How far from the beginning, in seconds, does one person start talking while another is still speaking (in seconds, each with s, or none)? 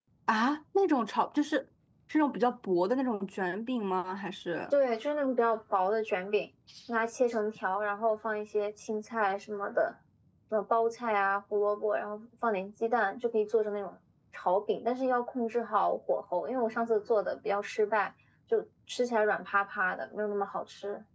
none